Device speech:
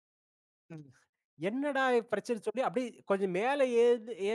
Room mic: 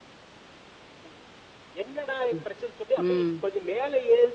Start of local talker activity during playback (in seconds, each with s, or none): 2.3 s